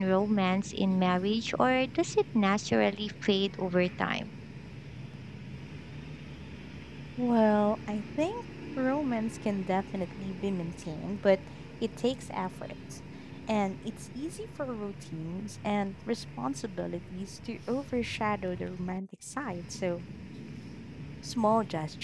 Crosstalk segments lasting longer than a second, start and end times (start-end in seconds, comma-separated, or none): none